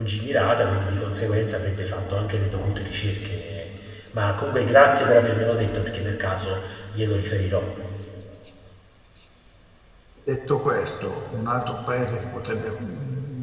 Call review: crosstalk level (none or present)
none